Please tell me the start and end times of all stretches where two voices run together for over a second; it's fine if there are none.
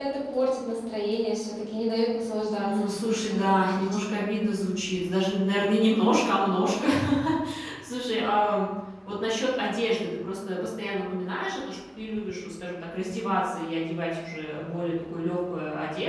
2.6-4.3

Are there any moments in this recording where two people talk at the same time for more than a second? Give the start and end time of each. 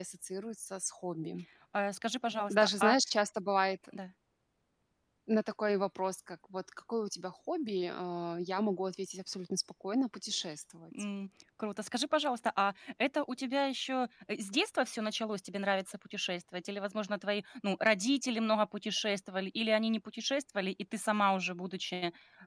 none

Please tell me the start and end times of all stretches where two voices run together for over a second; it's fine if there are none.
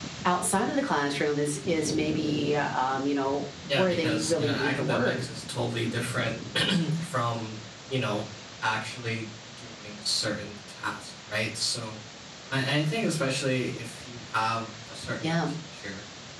3.7-5.1

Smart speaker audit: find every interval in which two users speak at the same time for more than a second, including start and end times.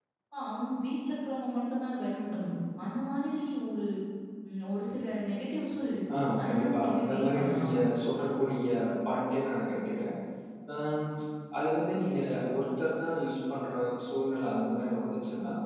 6.2-7.7

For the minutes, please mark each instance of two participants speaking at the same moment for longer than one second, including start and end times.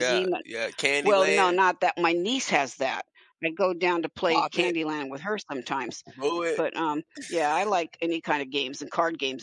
none

